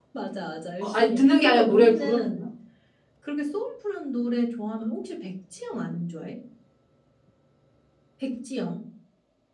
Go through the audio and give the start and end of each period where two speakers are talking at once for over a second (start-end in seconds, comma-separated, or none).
0.9-2.3